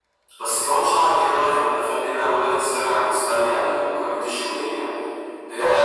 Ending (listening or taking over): taking over